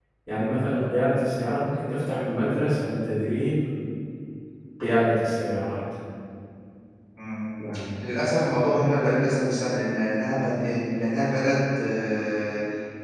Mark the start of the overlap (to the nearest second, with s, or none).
none